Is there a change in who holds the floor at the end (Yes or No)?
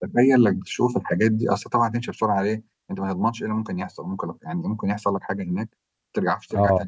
No